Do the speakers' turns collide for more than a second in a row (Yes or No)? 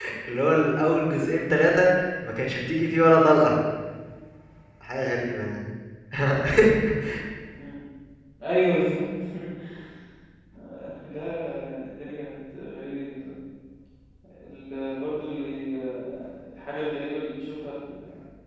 No